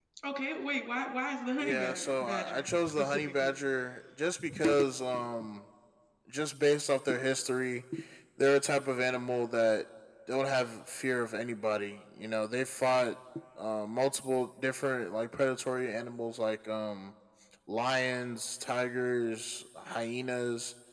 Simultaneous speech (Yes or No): Yes